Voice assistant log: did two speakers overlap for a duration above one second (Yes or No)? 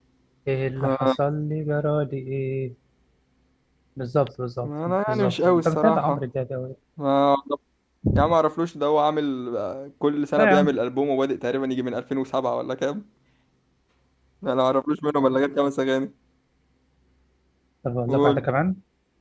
Yes